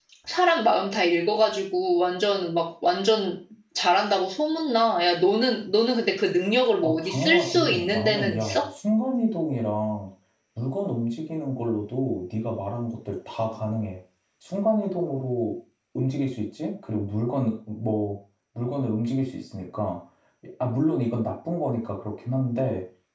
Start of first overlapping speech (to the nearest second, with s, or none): 7 s